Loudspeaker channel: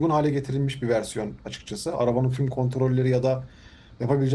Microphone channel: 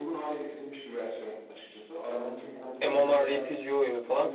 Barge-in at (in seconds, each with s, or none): 2.8 s